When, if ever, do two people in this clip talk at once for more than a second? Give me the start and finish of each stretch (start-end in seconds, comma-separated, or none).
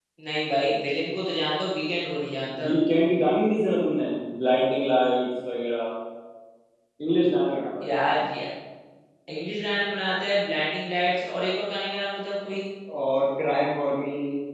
none